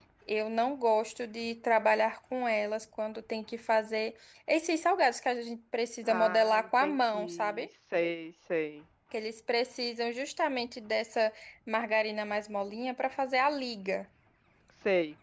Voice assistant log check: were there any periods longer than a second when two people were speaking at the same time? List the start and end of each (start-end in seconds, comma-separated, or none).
6.0-7.7